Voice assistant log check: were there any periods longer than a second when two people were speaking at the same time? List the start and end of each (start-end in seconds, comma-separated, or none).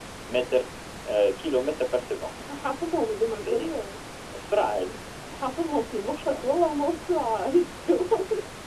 none